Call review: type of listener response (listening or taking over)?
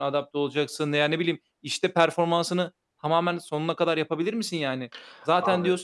listening